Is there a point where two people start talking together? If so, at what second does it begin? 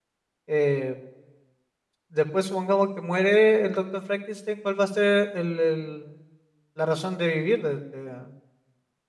none

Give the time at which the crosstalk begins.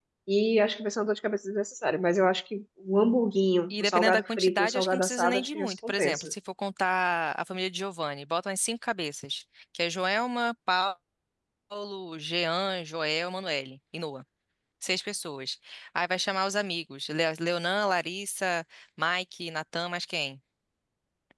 4 s

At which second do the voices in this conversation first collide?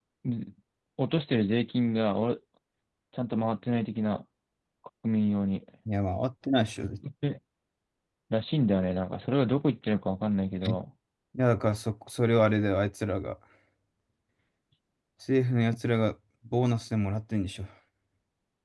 none

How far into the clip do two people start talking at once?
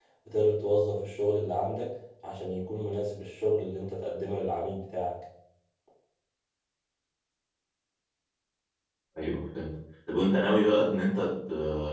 none

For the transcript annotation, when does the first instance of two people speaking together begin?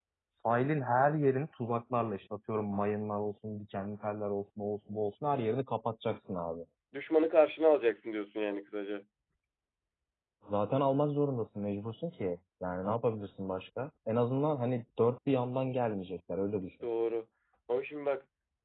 none

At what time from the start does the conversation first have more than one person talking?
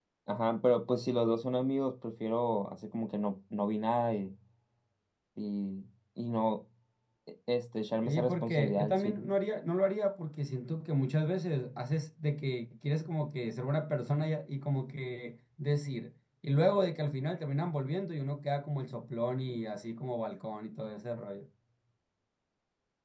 8 s

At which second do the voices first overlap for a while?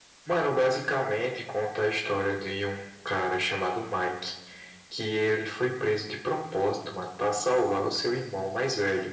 none

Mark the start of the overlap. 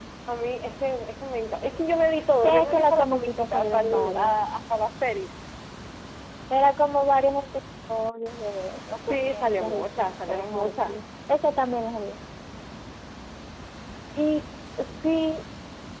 2 s

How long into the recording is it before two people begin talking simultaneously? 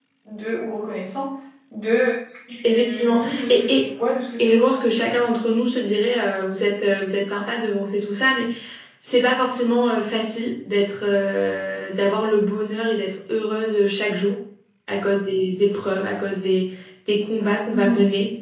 3 s

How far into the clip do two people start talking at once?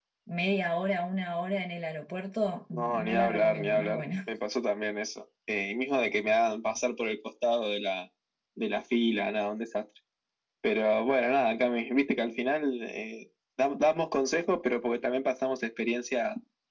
3 s

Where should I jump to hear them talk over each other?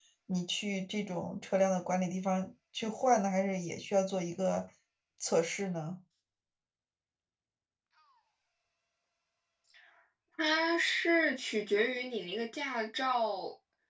none

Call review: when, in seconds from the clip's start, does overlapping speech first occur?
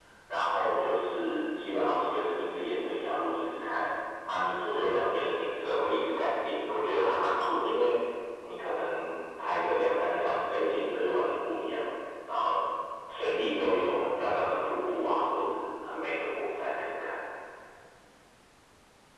none

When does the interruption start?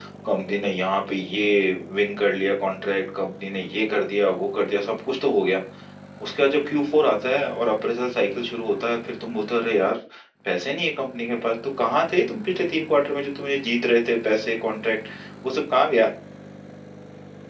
none

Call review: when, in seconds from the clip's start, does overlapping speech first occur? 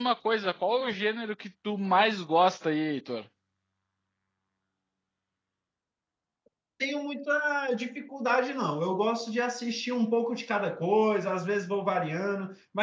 none

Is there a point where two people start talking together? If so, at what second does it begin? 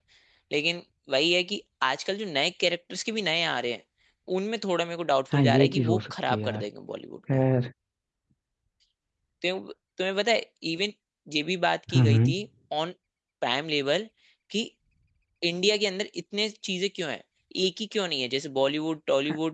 5 s

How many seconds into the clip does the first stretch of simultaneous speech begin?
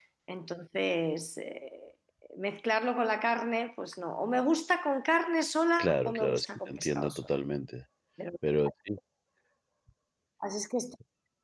6 s

